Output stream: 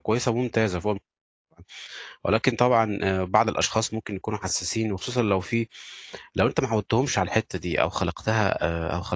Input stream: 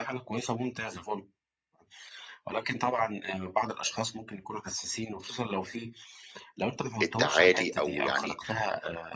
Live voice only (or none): التعالي أو يعني